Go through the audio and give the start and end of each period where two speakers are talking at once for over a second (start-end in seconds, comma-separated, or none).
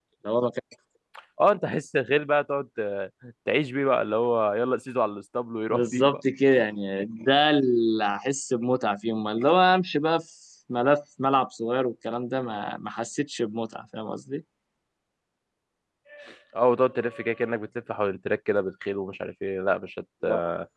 none